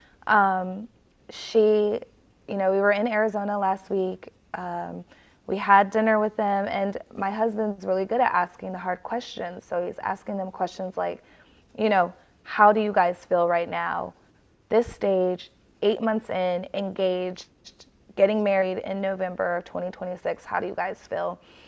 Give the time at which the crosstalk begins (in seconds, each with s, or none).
none